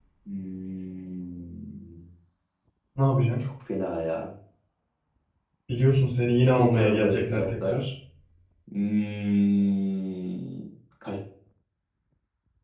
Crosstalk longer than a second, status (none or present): present